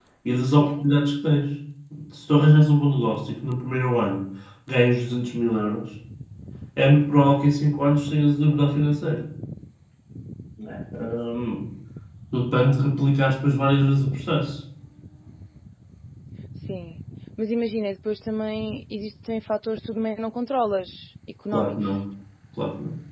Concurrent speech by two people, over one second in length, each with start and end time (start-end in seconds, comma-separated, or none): none